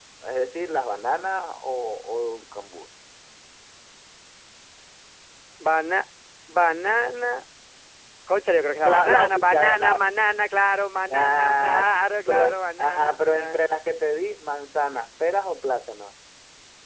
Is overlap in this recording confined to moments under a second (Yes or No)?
No